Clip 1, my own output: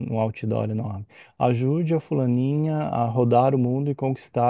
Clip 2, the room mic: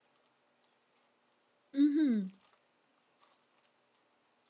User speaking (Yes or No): Yes